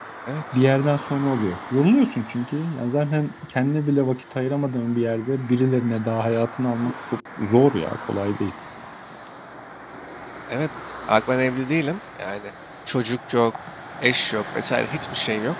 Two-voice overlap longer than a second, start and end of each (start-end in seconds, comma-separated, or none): none